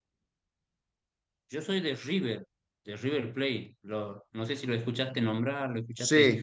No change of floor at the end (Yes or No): No